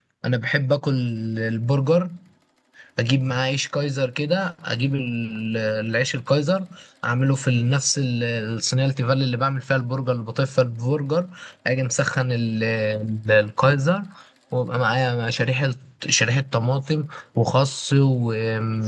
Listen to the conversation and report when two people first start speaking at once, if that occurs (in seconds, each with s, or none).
none